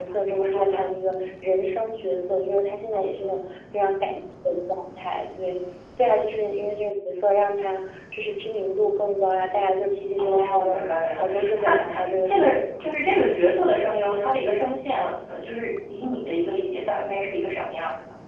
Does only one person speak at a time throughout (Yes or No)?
No